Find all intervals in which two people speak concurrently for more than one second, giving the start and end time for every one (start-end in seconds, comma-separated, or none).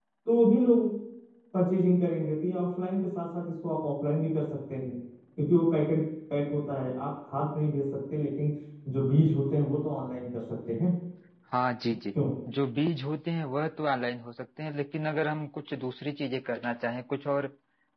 none